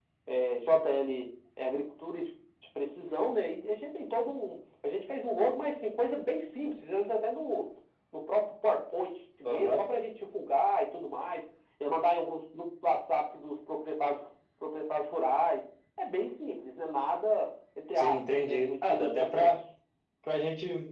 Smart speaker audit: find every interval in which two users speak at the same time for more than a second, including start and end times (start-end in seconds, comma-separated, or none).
18.0-19.6